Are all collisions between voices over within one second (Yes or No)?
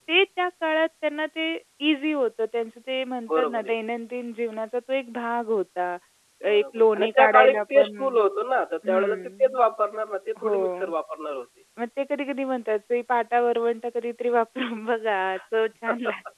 No